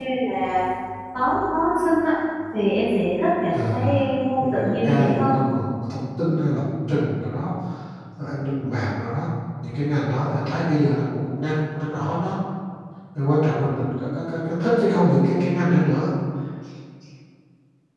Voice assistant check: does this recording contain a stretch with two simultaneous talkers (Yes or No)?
Yes